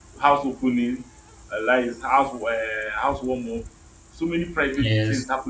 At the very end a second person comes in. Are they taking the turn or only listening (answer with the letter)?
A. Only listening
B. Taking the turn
A